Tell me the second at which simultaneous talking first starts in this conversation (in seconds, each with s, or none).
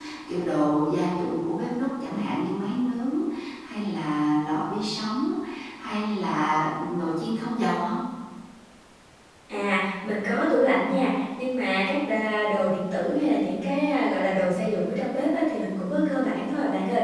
none